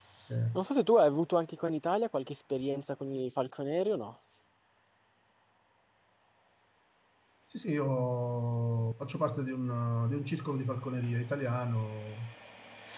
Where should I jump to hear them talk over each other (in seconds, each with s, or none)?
none